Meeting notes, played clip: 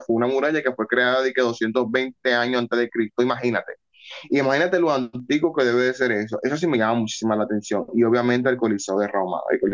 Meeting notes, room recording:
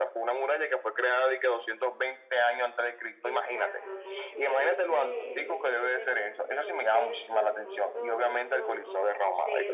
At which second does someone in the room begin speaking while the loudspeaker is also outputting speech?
3.2 s

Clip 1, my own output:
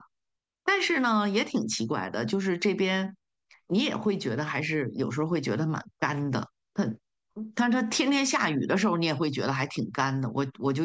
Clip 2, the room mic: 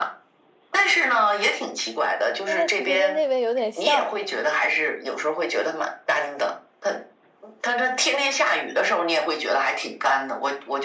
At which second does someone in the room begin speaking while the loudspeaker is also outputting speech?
2.4 s

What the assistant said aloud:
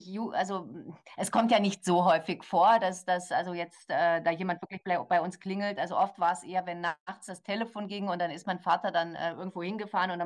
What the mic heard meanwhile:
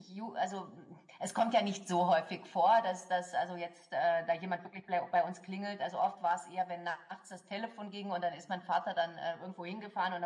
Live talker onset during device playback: none

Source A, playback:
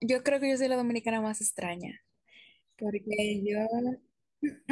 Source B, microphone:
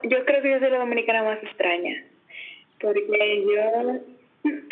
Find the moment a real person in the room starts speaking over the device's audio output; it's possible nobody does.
none

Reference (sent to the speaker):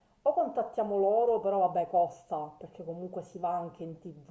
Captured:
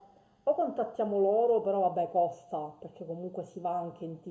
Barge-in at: none

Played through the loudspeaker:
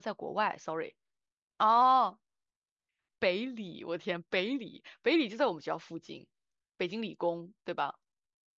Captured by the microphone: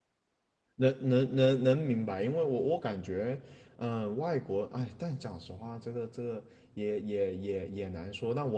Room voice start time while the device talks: 0.7 s

